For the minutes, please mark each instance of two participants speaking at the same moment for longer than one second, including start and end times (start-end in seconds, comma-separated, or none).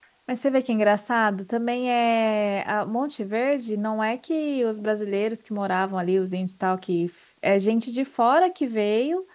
none